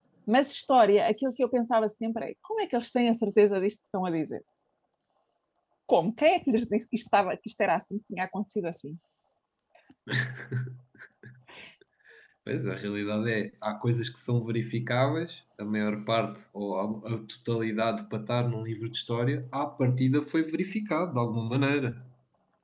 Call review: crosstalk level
none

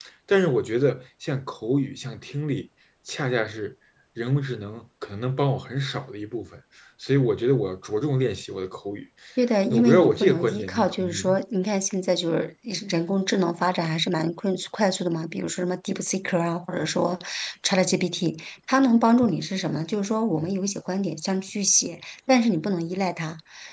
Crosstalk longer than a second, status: present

